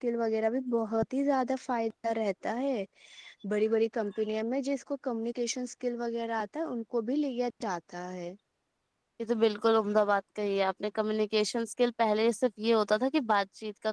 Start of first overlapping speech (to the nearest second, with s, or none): none